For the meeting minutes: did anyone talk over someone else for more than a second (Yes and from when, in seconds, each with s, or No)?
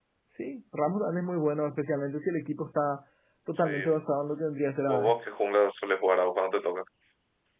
No